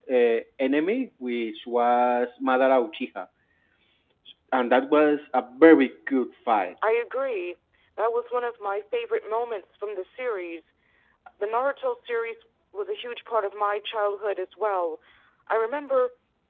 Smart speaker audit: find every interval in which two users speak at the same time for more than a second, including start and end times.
none

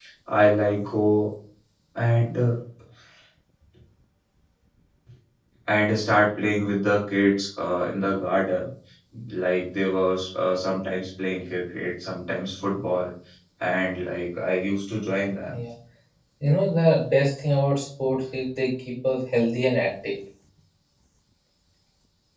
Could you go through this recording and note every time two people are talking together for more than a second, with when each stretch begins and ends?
none

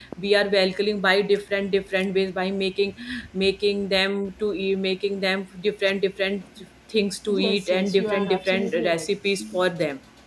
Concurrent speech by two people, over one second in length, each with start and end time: 7.3-9.1

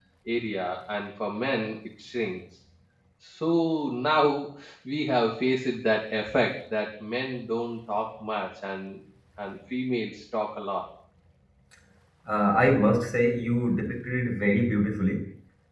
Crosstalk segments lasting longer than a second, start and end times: none

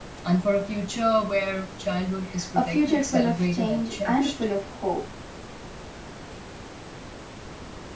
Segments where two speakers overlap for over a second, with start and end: 2.6-4.3

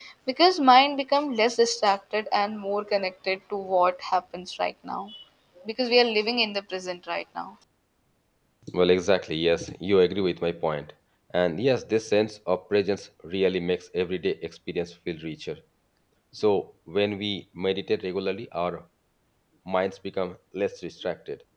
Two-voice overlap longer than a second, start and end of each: none

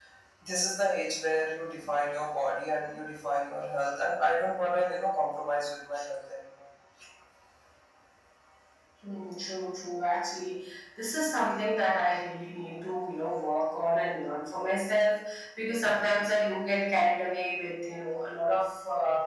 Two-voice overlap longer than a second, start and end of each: none

